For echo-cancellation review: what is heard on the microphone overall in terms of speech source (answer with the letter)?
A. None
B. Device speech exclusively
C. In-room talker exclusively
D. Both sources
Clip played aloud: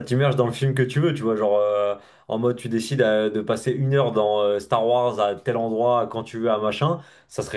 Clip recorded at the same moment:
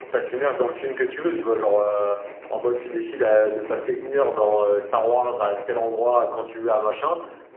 B